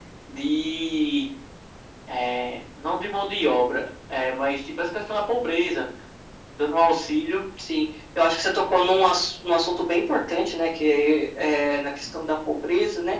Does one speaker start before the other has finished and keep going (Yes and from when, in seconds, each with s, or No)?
No